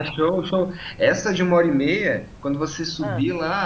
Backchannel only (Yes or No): Yes